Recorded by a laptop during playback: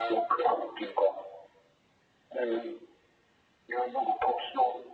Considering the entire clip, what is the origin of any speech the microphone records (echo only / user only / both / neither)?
echo only